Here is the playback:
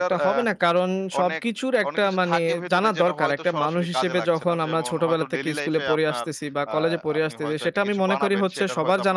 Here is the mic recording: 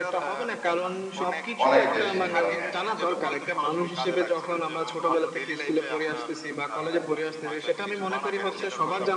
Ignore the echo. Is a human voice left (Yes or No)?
Yes